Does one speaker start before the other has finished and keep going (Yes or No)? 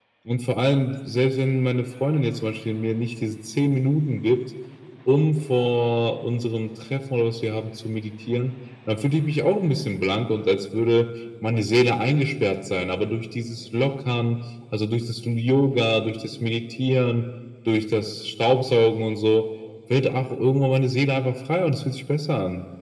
No